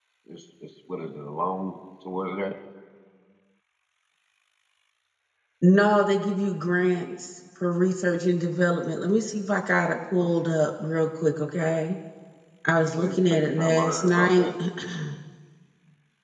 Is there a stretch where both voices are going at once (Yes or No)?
Yes